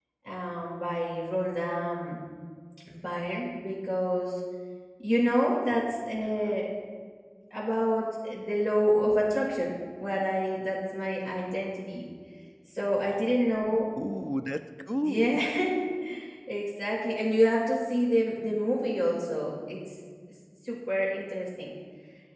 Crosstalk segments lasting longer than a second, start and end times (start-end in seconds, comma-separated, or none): none